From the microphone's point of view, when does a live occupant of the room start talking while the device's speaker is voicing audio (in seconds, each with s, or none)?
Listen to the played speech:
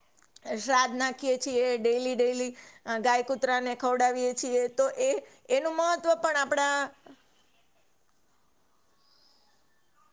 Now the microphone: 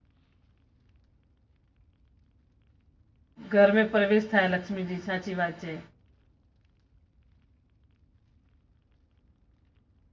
3.5 s